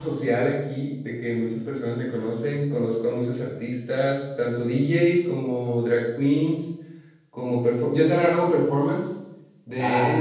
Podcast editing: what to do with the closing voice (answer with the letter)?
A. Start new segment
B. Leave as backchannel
A